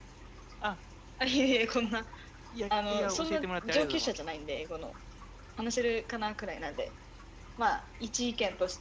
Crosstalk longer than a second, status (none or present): present